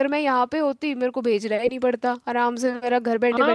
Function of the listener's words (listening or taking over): taking over